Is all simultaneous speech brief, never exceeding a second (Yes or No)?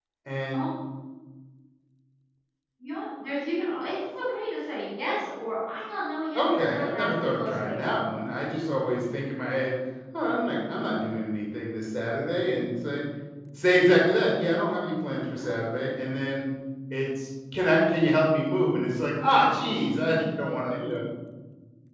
No